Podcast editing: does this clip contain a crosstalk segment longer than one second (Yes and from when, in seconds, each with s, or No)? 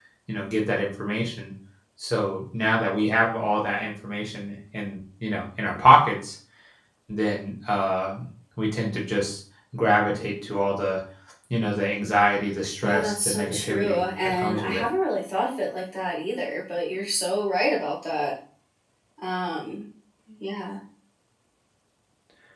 Yes, from 12.8 s